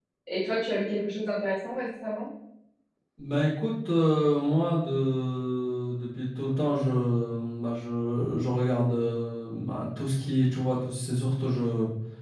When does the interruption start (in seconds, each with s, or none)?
none